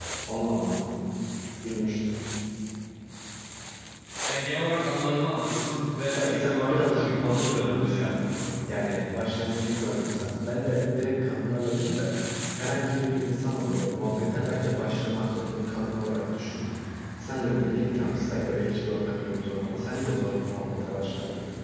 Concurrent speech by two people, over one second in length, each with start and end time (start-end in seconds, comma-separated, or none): 6.2-8.2